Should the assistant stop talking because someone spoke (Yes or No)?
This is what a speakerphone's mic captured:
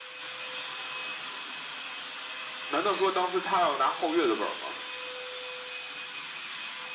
Yes